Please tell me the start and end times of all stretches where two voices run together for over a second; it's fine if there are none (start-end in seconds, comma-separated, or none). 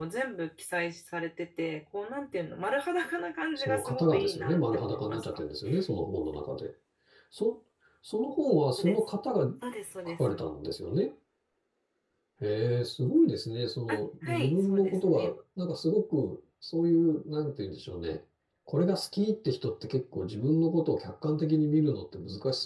3.6-5.4, 13.9-15.3